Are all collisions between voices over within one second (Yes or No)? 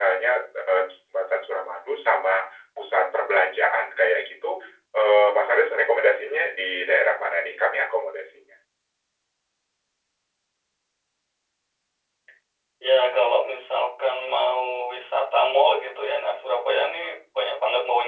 Yes